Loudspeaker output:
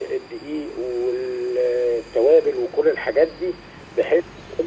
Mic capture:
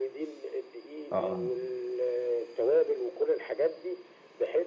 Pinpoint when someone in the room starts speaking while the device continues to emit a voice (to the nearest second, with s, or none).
1 s